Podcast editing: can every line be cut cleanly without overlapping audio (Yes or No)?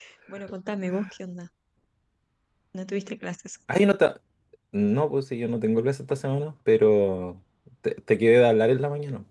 Yes